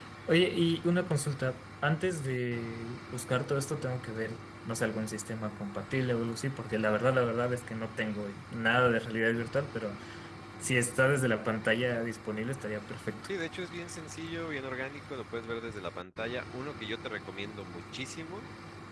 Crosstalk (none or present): none